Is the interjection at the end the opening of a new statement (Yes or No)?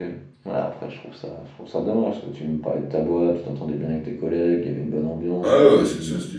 Yes